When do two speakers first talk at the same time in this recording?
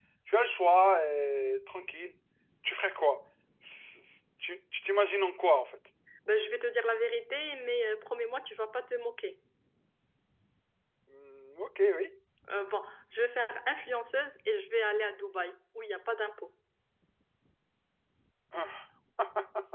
none

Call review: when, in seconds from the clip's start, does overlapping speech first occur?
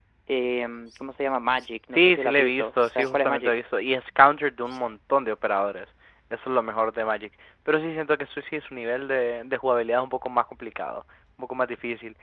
2 s

